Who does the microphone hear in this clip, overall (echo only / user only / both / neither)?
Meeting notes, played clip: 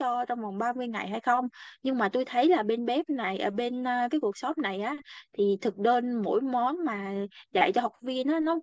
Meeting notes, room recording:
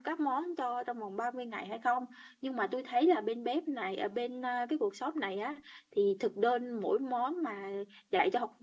echo only